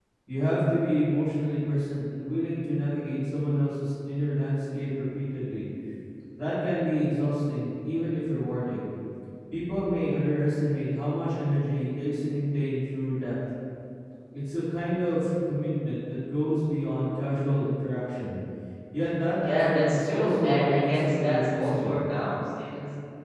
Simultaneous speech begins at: 19 s

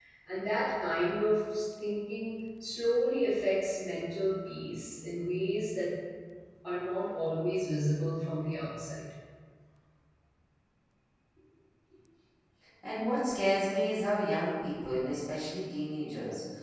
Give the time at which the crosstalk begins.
none

